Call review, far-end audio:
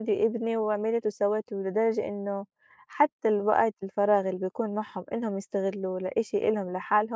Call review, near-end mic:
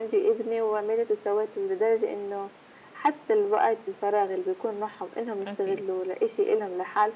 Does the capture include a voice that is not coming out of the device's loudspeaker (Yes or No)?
Yes